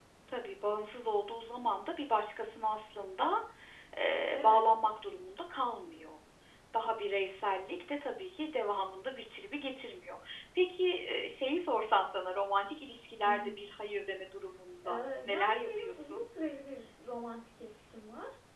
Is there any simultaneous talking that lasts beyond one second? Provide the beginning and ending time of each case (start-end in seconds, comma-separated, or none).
14.8-16.2